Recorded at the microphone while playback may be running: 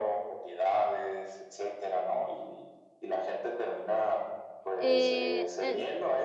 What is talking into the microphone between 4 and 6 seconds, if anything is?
both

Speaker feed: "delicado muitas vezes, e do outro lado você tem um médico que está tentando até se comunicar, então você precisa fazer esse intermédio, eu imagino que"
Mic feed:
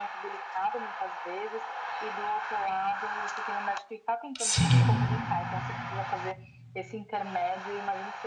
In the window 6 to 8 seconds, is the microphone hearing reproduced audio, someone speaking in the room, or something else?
echo only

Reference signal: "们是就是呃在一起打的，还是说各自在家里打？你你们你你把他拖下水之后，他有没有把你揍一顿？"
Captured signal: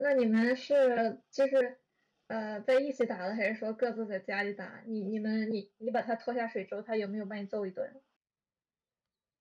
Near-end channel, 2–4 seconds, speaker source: echo only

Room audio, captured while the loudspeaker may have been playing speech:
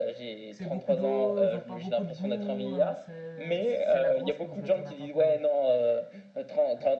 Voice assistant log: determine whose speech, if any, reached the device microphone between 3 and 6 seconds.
both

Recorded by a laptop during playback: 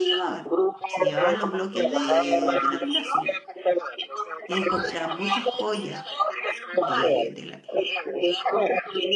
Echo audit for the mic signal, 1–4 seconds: both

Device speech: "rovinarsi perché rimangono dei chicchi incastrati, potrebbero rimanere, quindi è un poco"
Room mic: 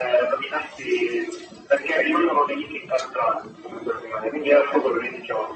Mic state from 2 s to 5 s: echo only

